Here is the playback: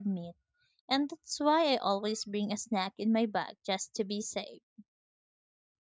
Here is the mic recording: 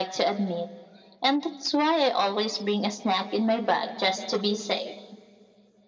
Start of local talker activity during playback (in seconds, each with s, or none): none